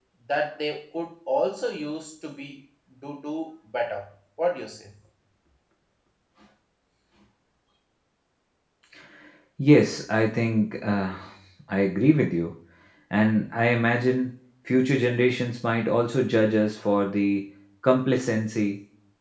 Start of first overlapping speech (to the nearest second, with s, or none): none